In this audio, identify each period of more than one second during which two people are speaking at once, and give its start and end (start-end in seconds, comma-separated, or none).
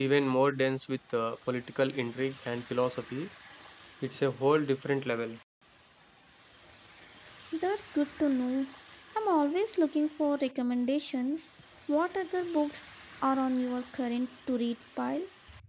none